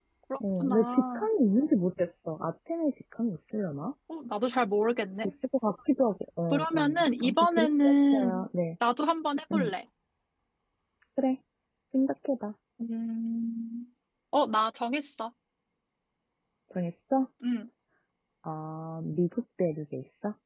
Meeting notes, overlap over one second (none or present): present